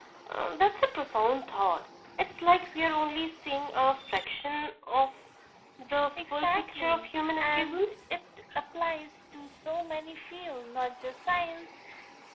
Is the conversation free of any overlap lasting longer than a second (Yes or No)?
No